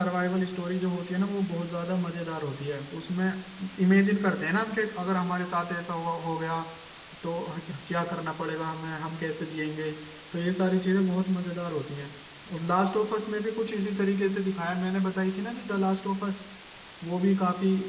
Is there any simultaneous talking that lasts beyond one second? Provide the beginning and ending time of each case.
none

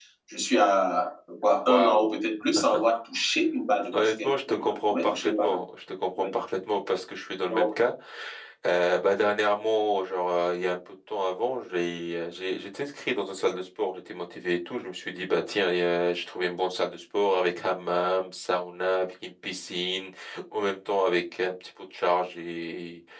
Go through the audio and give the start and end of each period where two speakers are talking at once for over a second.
3.9-5.6

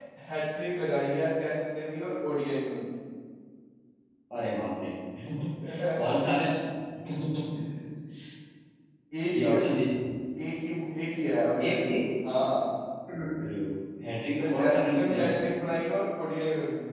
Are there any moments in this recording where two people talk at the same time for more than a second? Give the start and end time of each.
14.1-15.3

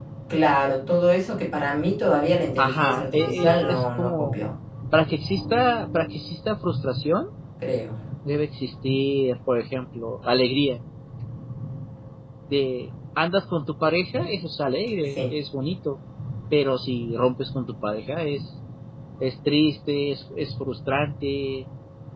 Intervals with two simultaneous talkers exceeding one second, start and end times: 2.6-4.4

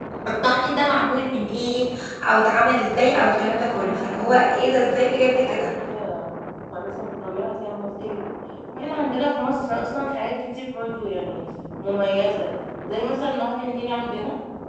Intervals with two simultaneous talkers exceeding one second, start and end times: 3.4-4.8

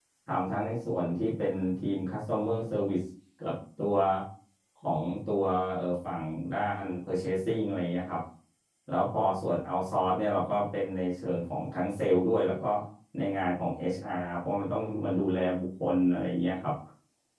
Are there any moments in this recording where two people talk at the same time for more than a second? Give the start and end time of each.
none

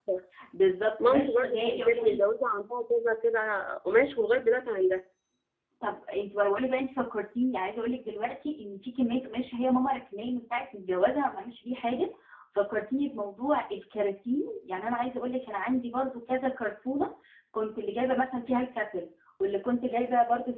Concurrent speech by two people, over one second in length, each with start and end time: 1.0-2.2

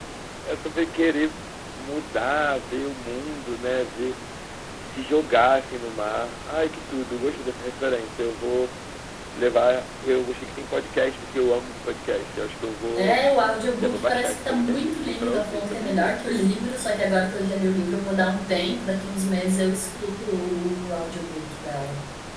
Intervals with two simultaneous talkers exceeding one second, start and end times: 13.8-16.2

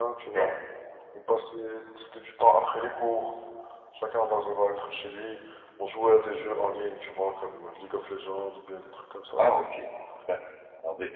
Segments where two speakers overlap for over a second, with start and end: none

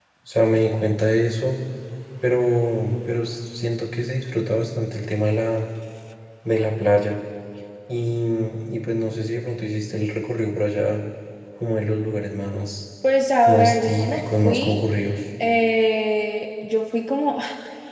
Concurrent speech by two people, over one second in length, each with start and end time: 13.5-14.8

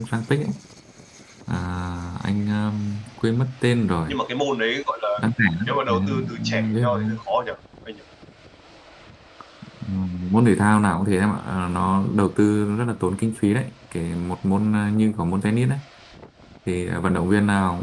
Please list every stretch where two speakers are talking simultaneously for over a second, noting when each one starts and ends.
5.7-7.2

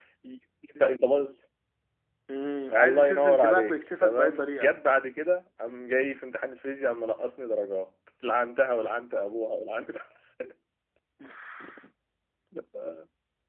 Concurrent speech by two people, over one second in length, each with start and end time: 2.7-4.8

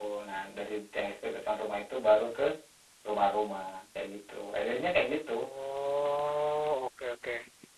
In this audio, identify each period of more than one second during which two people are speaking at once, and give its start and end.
none

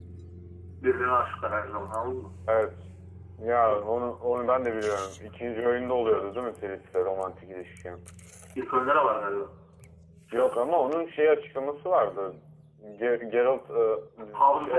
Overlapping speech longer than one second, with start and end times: none

